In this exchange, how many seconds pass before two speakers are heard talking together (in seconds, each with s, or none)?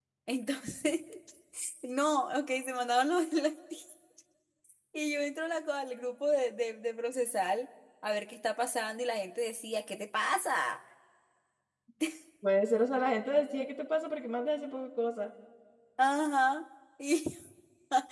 none